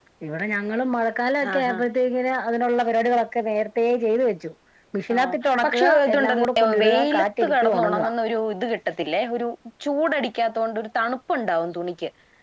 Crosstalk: present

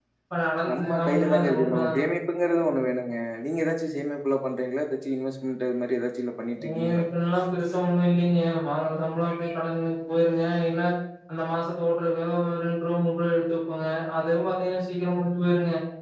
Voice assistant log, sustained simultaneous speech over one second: present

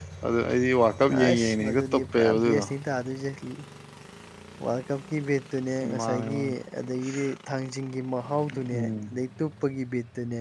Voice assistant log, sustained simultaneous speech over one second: present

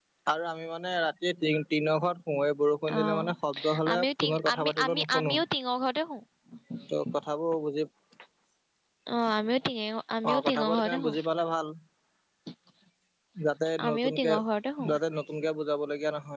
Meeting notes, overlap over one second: present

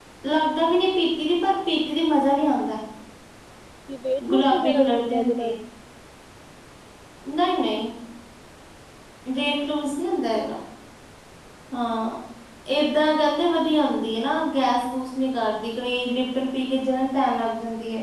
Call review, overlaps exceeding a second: present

